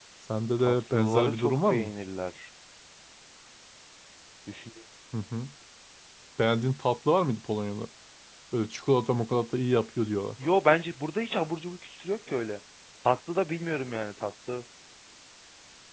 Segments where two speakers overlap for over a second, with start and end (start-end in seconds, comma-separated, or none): 0.6-1.9